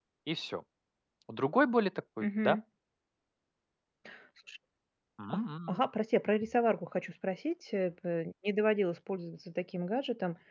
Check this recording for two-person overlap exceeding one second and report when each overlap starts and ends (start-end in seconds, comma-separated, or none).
none